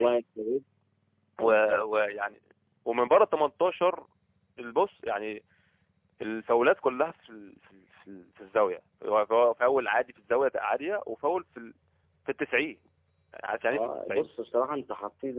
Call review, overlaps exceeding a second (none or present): none